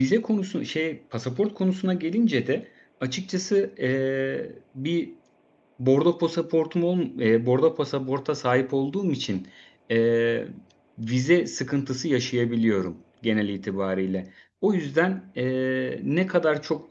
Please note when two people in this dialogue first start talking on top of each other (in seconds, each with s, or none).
none